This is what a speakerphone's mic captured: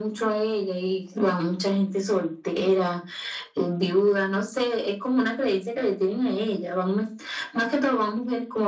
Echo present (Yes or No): Yes